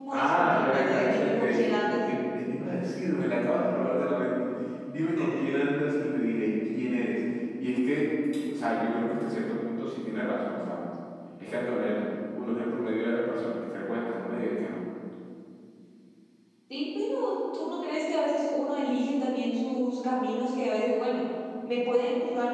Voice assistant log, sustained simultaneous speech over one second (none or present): present